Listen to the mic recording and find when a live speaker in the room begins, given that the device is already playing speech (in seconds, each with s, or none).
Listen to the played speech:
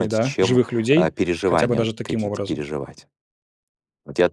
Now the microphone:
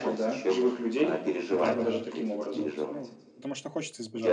1.5 s